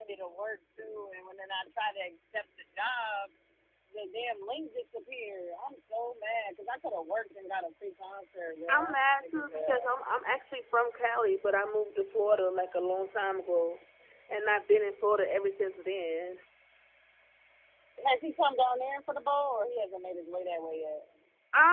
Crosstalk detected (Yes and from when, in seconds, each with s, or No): Yes, from 8.7 s